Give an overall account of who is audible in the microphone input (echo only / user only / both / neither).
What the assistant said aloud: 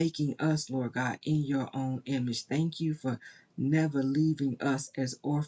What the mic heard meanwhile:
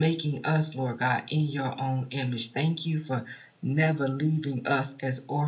echo only